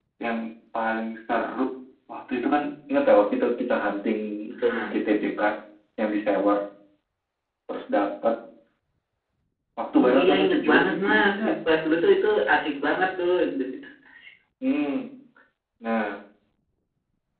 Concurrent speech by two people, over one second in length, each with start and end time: 10.0-11.6

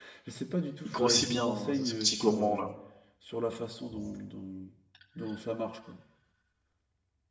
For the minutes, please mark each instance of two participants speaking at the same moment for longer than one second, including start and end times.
1.0-2.6

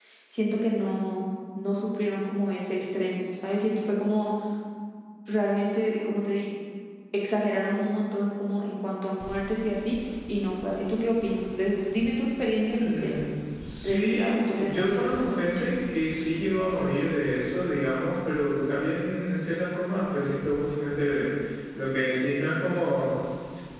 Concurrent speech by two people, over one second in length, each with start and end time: 13.8-15.6

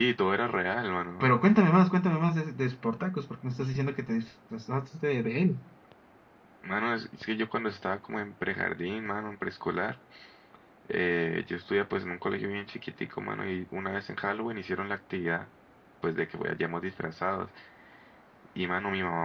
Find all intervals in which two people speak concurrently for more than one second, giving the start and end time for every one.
none

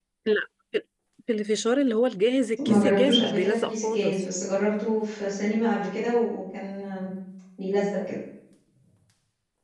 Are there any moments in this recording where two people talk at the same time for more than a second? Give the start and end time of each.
2.7-4.2

